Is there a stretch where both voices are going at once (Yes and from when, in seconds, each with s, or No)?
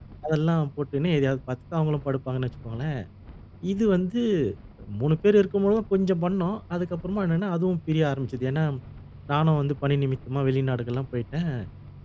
No